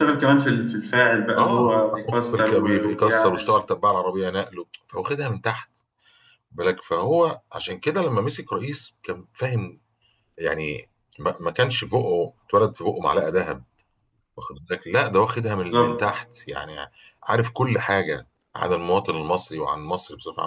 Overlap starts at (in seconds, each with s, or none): 1.4 s